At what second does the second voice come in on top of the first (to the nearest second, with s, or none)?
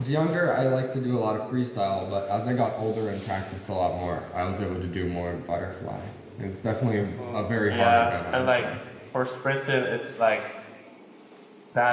7 s